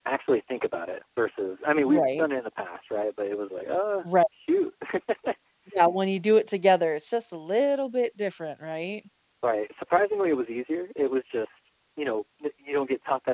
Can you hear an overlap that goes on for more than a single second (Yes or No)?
No